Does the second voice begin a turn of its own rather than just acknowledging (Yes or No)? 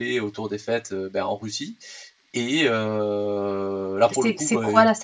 Yes